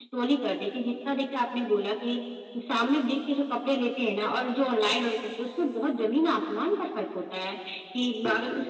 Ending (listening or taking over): listening